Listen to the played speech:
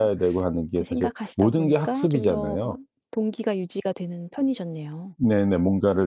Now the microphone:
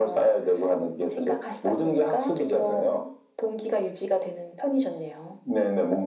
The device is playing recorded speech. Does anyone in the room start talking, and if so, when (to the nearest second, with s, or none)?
none